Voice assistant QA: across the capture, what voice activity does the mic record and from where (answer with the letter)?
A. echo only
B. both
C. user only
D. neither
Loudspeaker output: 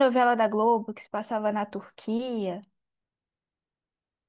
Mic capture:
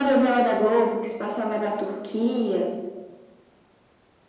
A